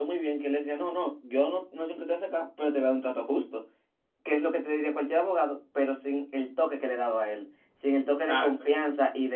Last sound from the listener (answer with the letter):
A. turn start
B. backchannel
B